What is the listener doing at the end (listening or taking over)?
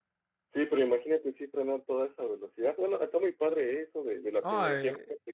taking over